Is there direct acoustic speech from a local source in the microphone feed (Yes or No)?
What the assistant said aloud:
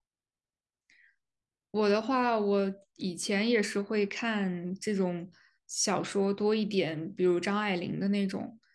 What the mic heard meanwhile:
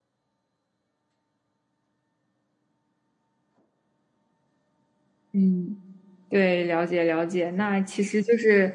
Yes